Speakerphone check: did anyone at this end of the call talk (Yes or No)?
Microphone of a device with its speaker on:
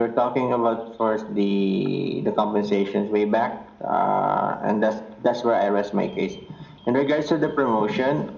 No